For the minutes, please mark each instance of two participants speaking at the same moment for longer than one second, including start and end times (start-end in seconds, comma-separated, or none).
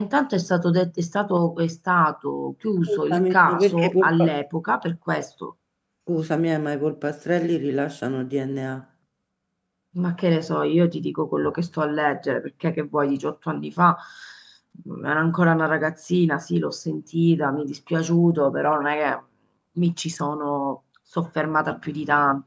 2.9-4.3